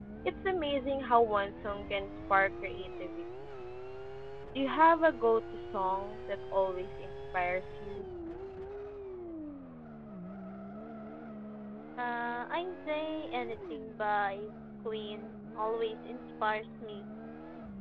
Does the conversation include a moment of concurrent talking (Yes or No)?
No